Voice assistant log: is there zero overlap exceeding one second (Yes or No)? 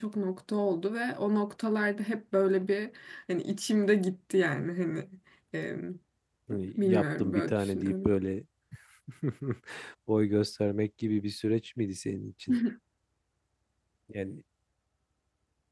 No